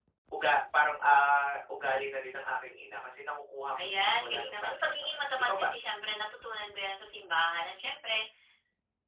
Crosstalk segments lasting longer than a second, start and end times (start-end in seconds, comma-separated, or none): 3.8-5.7